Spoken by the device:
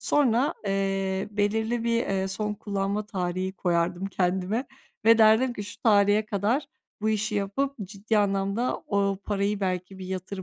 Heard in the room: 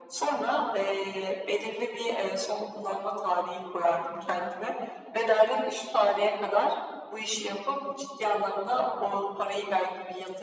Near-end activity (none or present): none